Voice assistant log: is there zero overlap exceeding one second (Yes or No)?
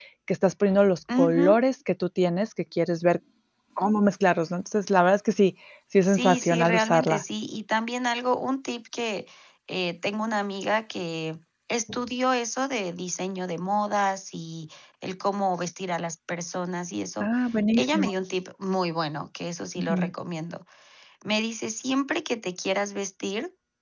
No